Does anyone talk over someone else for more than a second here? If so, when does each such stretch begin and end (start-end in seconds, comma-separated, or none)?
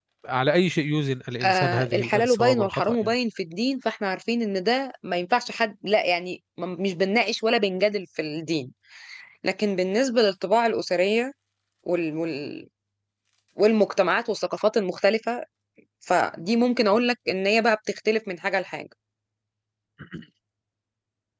1.4-3.1